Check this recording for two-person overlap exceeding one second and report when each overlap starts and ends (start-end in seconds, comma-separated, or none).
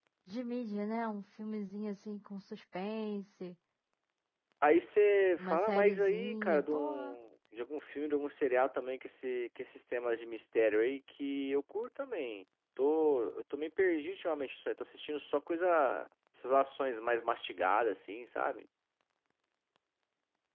5.4-7.2